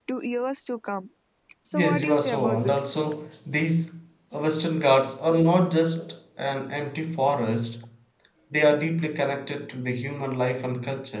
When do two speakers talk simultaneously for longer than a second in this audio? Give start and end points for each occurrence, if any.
1.7-3.0

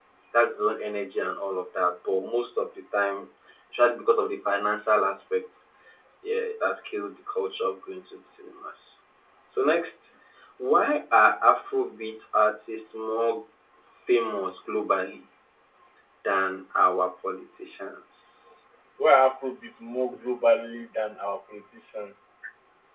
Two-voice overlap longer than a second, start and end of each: none

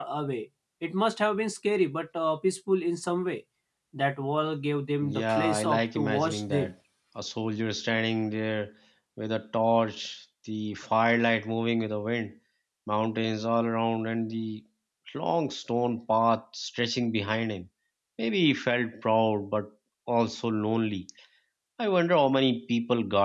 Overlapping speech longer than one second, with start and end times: 5.1-6.7

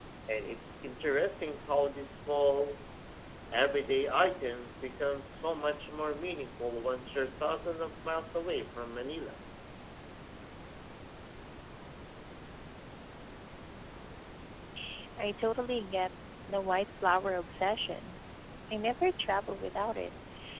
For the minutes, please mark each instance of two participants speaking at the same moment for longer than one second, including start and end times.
none

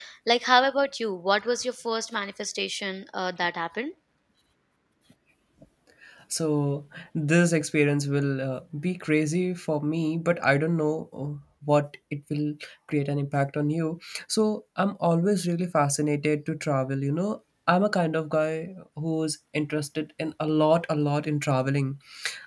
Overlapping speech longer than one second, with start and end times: none

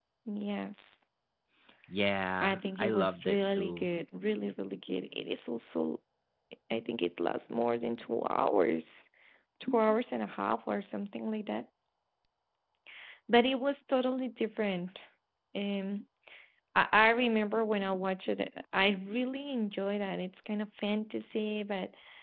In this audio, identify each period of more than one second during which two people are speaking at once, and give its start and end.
2.4-3.9

